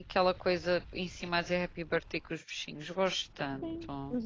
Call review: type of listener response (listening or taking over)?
taking over